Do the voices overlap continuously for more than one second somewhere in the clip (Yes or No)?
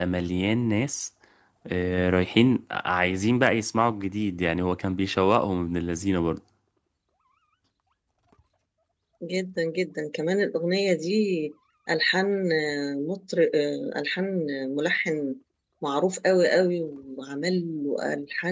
No